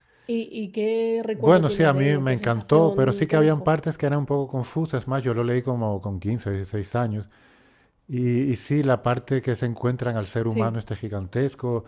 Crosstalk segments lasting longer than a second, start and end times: 1.4-3.7

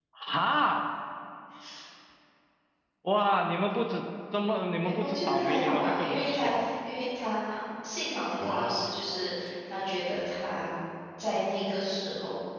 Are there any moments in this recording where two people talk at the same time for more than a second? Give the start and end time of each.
4.8-6.8

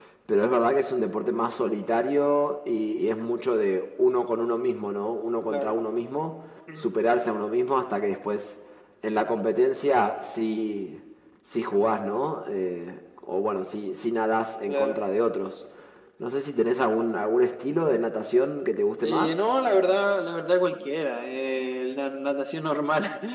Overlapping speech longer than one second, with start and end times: none

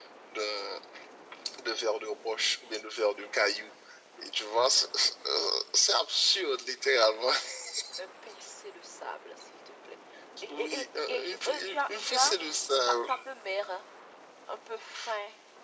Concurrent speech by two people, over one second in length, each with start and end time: 10.5-12.3

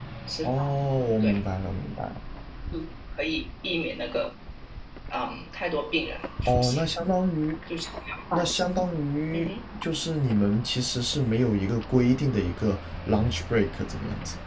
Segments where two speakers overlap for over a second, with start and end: none

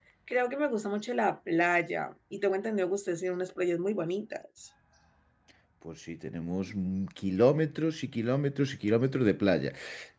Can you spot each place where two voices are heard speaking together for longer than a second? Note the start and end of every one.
none

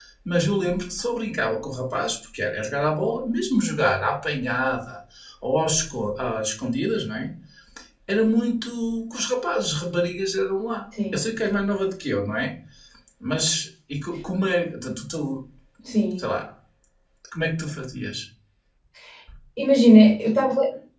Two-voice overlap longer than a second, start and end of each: none

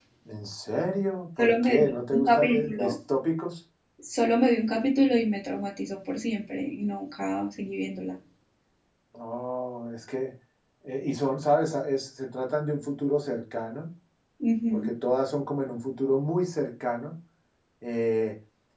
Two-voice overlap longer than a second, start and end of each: 1.4-3.0

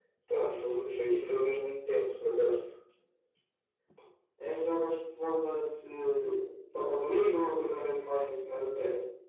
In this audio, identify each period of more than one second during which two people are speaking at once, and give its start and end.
none

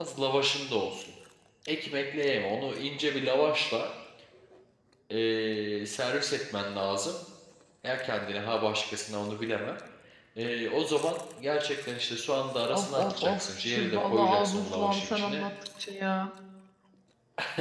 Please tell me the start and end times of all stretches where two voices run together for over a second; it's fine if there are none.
12.7-15.4

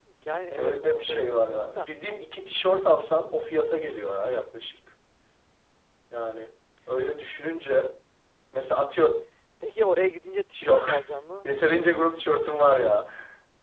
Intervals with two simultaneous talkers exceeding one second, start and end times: 0.6-1.9

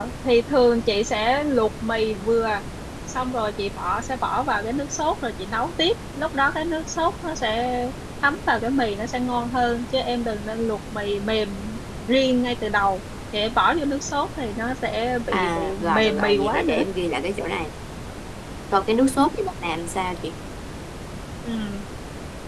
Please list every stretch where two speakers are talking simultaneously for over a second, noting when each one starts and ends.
15.3-16.8

